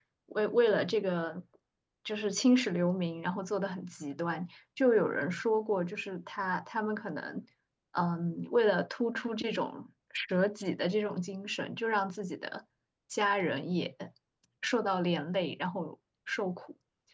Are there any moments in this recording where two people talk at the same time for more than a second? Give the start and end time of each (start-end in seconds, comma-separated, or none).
none